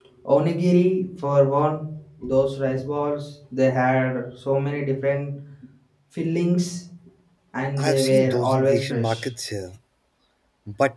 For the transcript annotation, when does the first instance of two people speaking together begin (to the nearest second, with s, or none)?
8 s